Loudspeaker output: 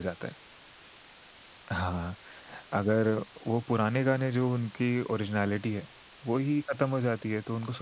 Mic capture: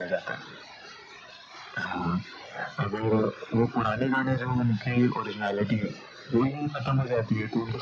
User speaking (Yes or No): No